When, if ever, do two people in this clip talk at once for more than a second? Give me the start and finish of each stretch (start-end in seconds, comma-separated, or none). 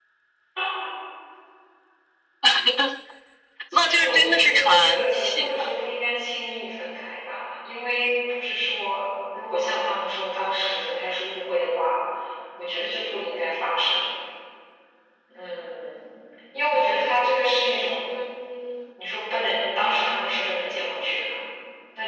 3.7-5.7